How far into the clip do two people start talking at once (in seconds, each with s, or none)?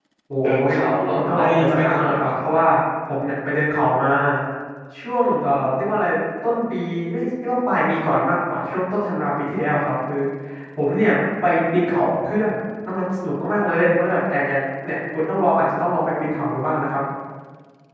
0.7 s